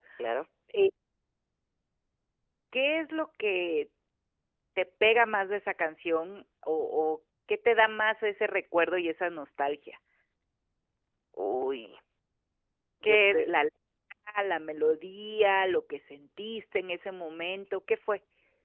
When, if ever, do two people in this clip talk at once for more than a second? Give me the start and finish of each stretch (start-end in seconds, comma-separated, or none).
none